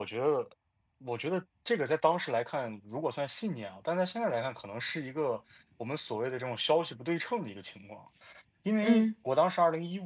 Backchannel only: Yes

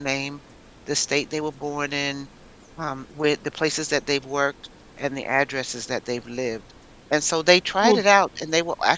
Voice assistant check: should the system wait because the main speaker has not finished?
Yes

